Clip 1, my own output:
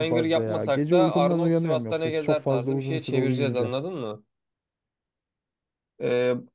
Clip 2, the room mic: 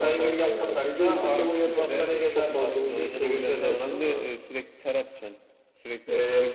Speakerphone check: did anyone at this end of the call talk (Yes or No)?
Yes